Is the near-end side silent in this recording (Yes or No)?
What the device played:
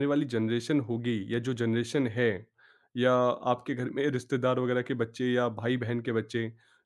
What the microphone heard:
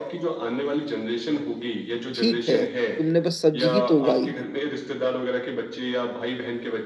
No